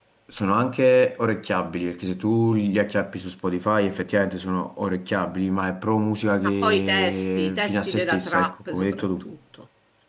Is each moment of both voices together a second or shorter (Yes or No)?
No